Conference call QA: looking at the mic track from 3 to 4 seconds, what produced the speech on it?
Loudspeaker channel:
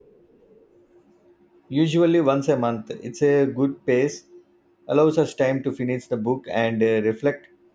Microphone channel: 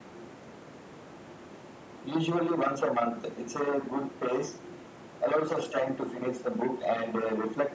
echo only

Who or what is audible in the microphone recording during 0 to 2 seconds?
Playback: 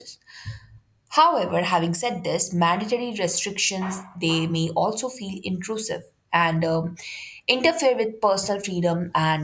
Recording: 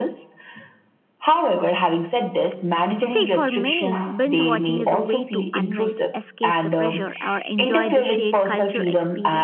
echo only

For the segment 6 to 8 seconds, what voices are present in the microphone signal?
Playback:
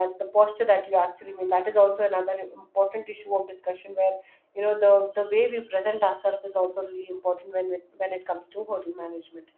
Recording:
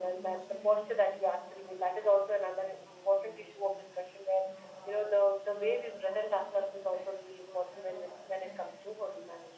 both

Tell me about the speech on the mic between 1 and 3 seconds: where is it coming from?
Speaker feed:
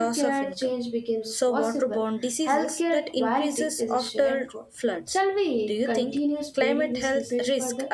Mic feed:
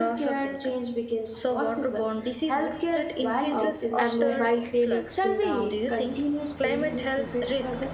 echo only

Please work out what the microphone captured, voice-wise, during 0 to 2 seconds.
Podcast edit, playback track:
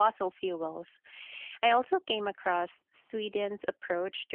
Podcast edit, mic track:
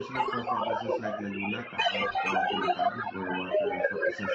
both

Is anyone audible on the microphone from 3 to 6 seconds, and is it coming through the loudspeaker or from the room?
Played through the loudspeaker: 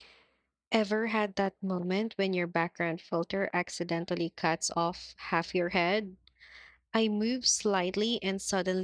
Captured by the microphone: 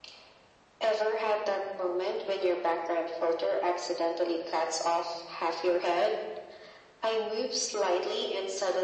echo only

